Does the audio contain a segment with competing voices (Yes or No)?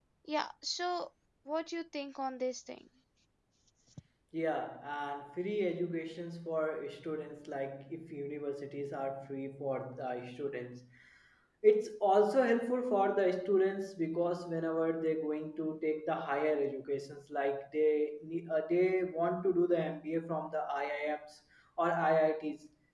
No